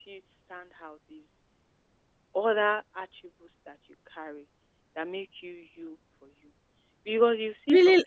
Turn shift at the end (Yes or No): Yes